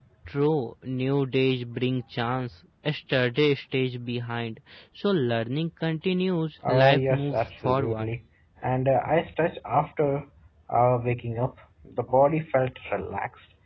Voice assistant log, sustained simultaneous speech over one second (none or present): present